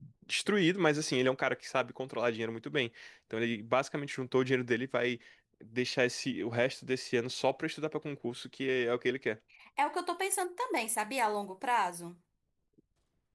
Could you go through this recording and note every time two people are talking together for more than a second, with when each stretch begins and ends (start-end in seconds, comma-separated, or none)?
none